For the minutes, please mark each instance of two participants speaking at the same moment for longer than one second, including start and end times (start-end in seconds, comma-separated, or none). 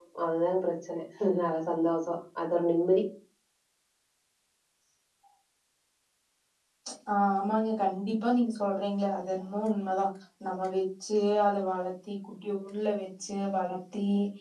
none